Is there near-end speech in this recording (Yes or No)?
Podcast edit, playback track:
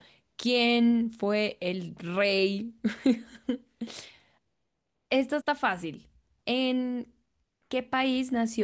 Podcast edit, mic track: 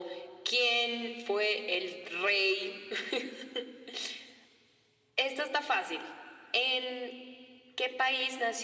No